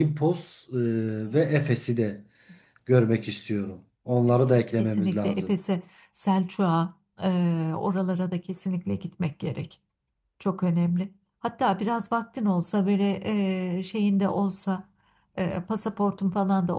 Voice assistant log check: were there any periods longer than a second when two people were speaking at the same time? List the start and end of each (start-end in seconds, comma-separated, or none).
4.3-5.5